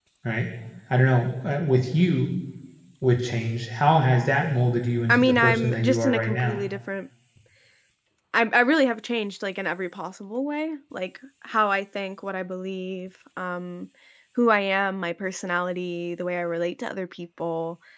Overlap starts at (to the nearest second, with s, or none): 5 s